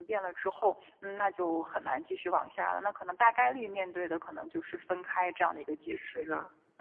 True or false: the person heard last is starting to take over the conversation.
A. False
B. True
B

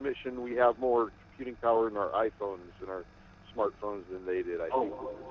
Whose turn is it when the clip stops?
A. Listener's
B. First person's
A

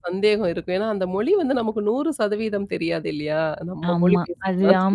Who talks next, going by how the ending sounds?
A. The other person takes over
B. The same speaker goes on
A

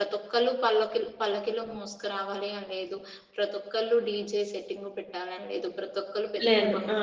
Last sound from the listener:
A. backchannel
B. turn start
A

